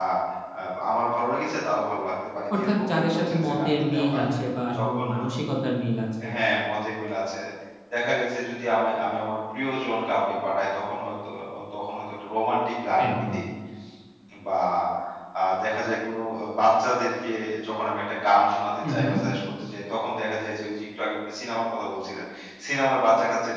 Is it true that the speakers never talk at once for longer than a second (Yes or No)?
No